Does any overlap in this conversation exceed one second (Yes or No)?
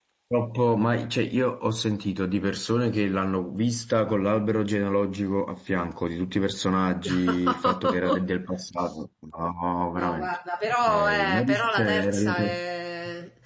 Yes